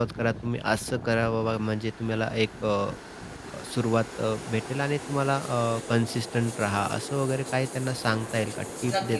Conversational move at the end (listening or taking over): taking over